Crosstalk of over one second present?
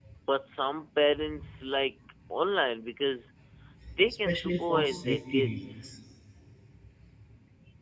Yes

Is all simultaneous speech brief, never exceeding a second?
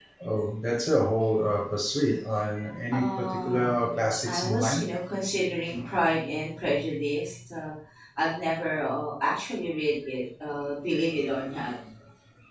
No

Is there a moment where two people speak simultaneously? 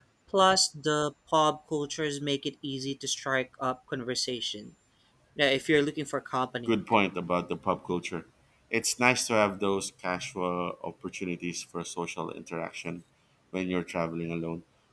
No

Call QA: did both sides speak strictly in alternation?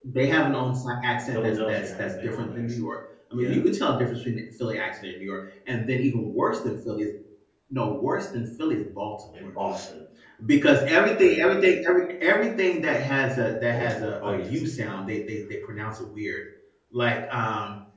No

